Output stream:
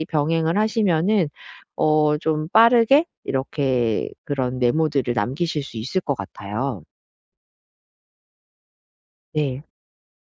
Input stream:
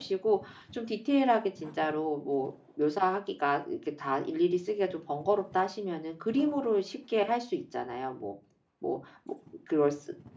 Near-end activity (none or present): present